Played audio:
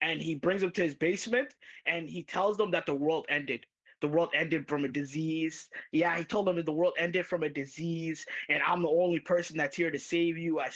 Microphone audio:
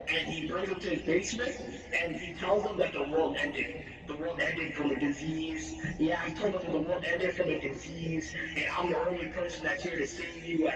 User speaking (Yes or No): No